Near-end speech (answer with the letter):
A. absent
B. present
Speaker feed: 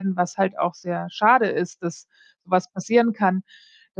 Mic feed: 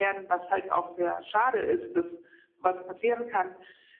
A